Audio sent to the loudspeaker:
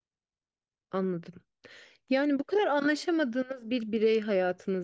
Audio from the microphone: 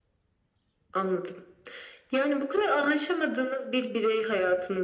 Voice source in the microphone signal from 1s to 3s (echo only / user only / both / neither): echo only